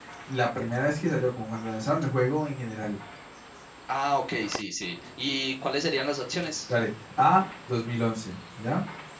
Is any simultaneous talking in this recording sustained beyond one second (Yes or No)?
No